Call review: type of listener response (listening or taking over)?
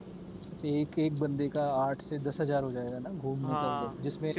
taking over